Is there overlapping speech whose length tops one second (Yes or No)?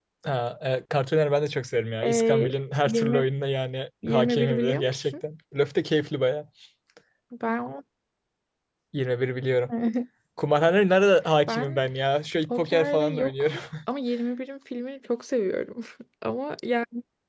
Yes